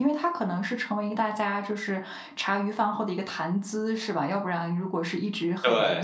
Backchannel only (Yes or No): Yes